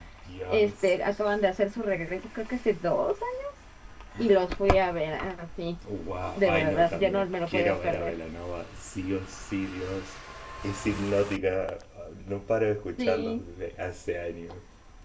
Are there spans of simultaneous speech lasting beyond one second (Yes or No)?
Yes